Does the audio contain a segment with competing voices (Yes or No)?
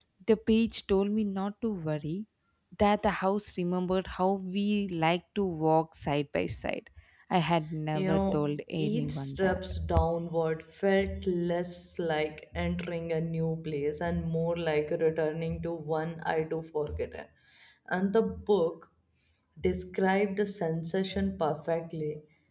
Yes